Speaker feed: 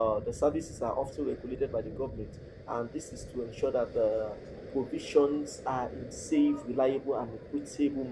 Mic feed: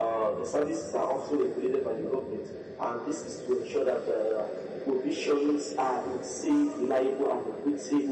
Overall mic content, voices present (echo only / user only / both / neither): echo only